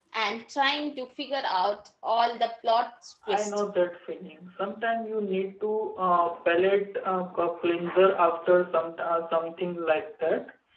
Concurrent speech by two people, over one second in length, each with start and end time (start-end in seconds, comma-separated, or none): none